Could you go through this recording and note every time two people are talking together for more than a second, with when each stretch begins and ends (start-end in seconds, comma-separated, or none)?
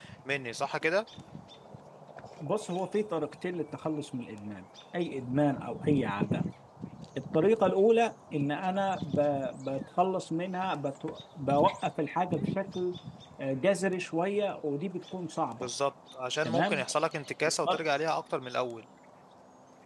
none